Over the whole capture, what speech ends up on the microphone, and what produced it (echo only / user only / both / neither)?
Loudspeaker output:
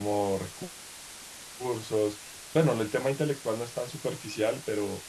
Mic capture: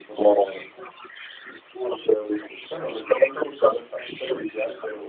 echo only